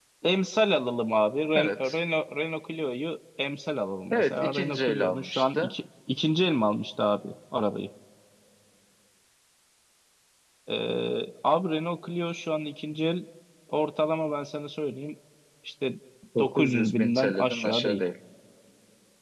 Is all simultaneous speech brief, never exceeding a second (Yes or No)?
No